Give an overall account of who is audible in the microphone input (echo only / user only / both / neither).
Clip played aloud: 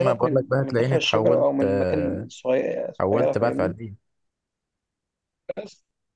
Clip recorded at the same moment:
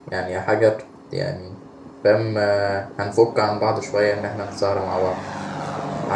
user only